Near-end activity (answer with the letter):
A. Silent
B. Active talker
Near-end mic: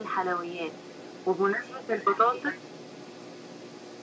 A